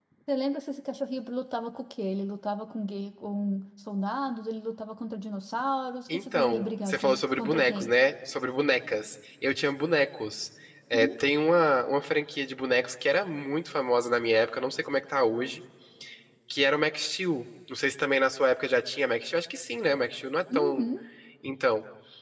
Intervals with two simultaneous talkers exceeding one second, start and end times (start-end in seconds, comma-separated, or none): 6.1-7.9